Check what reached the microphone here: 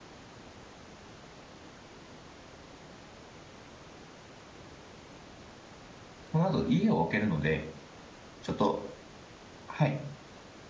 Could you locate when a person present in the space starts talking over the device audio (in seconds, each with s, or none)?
6.2 s